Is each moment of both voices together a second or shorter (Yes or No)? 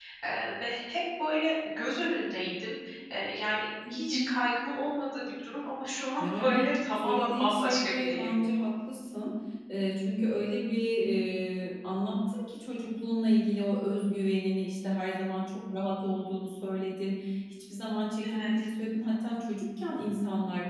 No